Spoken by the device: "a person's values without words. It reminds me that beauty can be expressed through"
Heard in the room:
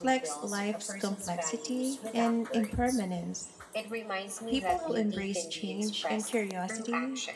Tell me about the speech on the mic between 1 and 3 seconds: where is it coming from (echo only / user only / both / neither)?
both